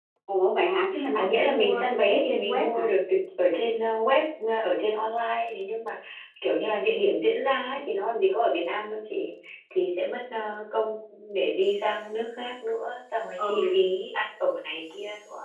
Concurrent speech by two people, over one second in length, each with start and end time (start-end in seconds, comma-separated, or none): 1.1-2.9